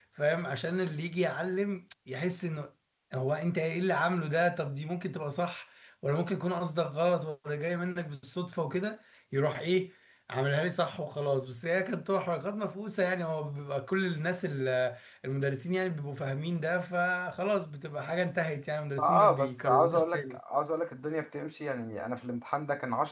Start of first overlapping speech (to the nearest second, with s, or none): 19 s